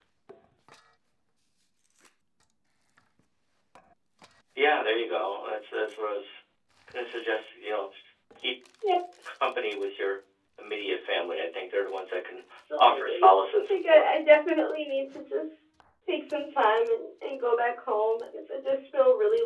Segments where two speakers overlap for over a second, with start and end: 12.8-14.1

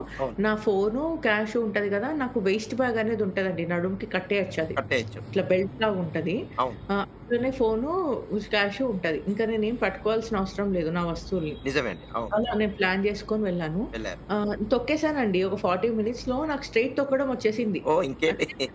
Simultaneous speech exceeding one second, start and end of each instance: none

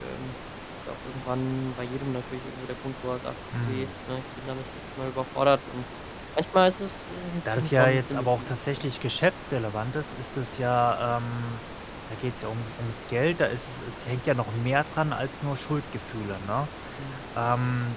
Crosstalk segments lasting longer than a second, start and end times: 7.5-8.9

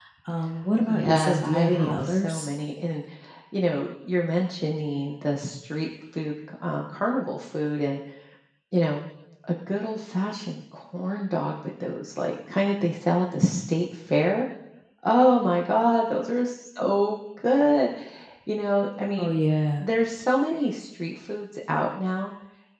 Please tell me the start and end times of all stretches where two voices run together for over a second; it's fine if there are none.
0.9-2.5

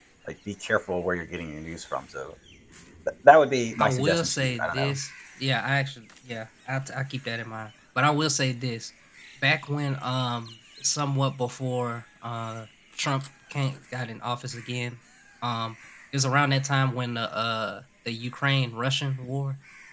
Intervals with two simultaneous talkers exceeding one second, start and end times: 3.8-5.0

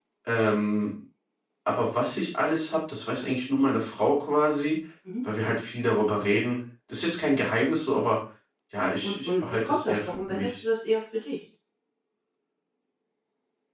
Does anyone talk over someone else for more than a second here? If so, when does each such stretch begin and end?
9.0-10.5

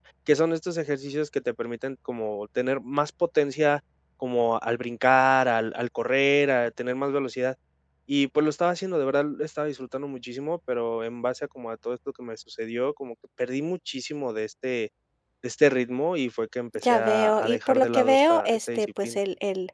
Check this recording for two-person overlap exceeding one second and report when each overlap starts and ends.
16.8-19.2

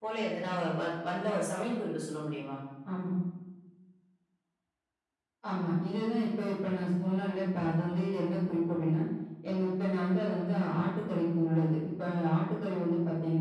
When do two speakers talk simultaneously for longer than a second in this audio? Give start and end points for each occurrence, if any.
none

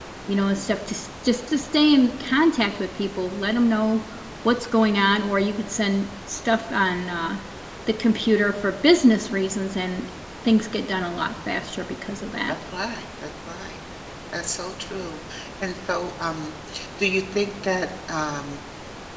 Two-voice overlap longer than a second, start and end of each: none

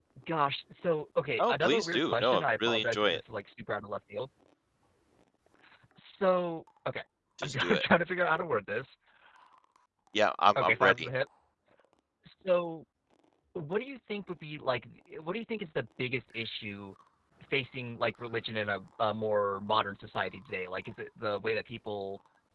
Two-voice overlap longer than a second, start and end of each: 1.4-3.2

